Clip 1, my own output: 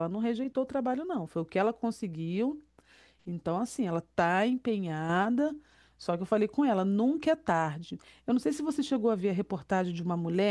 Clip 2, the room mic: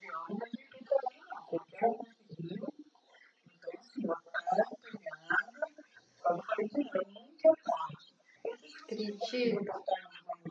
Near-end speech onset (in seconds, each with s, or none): 8.8 s